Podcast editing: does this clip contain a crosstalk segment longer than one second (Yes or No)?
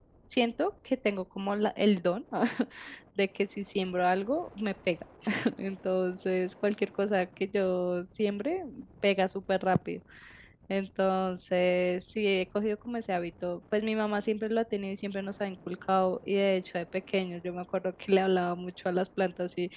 No